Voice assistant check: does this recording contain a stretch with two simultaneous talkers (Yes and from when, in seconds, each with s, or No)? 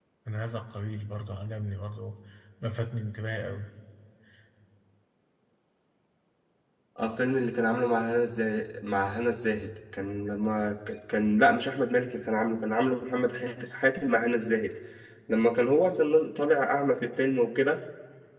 No